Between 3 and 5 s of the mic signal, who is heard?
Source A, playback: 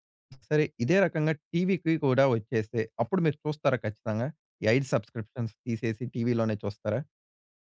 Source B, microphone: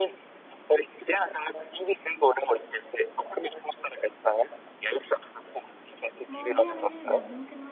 echo only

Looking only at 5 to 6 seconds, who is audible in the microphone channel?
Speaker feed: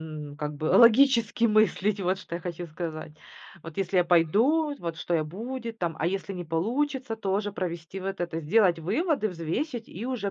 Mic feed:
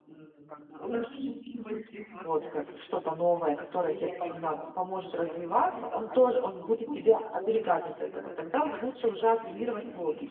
both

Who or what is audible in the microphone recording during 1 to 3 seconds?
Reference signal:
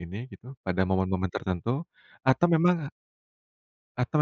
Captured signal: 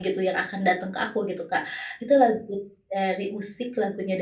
user only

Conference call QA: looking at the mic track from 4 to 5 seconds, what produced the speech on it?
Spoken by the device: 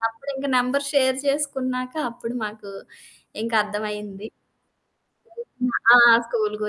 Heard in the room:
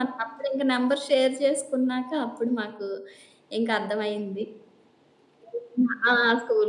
echo only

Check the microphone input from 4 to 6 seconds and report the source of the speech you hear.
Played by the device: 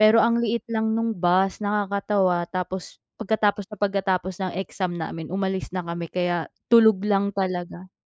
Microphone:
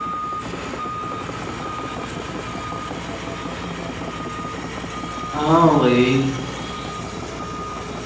user only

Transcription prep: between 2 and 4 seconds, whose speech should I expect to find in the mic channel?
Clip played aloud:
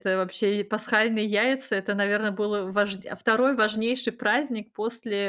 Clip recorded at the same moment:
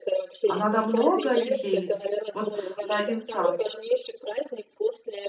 both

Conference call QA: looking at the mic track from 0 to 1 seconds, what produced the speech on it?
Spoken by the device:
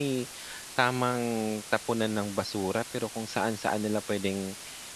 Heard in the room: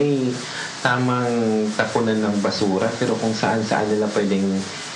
echo only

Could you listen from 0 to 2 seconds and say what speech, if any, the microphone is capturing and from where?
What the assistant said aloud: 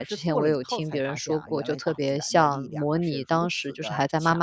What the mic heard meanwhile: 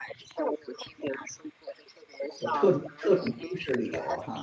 echo only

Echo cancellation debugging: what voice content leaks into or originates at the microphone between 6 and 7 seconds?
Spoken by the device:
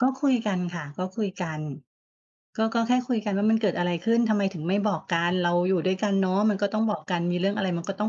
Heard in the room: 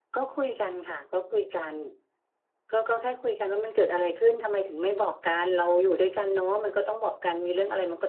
echo only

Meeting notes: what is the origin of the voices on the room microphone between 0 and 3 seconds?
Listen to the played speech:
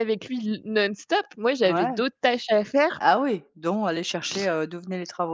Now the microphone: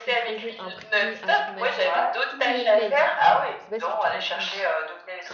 both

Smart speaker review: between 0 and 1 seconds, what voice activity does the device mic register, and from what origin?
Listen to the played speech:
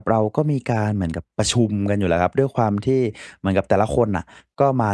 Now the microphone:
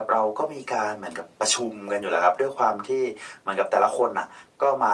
echo only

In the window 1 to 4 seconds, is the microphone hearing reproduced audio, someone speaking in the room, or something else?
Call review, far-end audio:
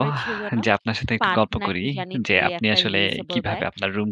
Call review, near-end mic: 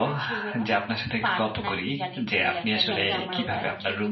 both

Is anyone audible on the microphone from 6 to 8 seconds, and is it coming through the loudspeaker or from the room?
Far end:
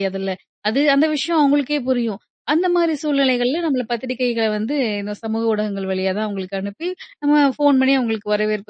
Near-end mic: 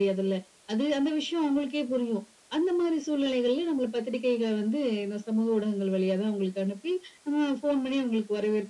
echo only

